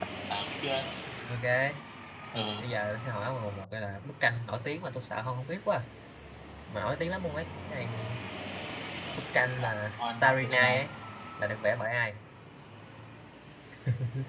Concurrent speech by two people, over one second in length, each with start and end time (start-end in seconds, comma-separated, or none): 9.6-10.8